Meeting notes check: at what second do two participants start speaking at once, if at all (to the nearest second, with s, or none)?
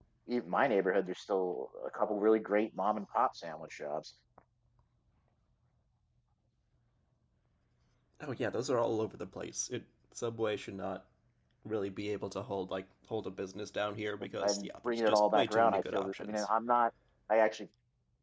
14 s